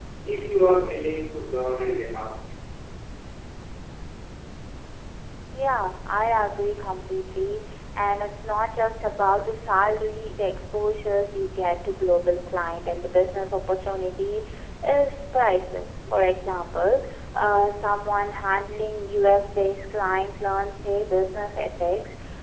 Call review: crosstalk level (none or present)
none